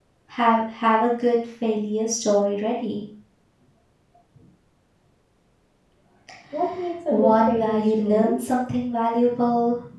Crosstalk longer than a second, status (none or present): present